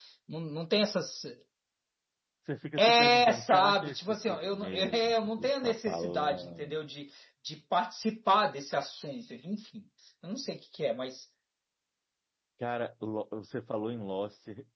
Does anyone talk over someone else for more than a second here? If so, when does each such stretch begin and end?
2.8-6.8

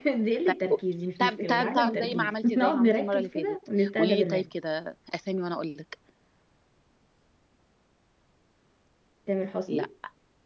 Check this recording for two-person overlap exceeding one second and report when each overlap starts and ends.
1.2-4.4

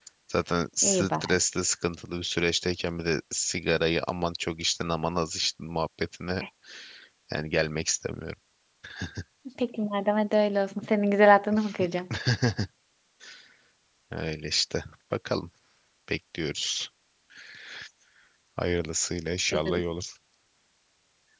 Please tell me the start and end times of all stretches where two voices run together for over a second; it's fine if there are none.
none

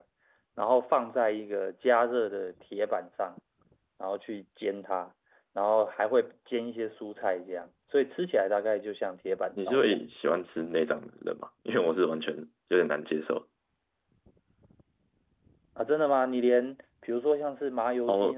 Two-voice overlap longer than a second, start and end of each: none

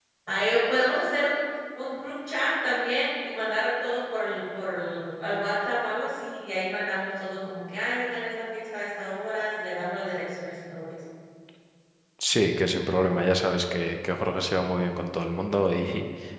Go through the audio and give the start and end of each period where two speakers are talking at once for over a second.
none

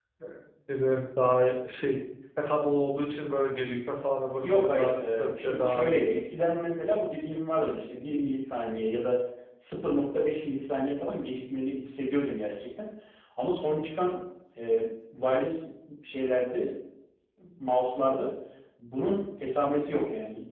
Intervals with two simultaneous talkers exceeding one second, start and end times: 4.4-6.1

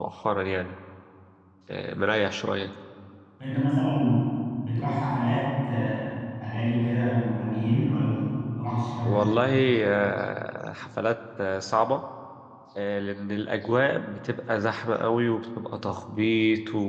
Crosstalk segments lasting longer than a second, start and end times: none

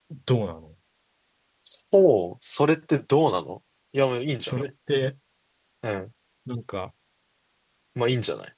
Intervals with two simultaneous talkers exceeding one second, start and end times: none

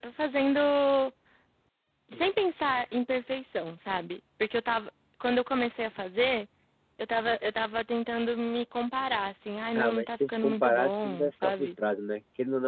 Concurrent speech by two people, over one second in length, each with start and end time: 9.8-11.7

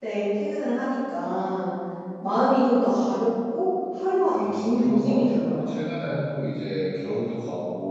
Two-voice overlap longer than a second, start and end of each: 4.3-5.8

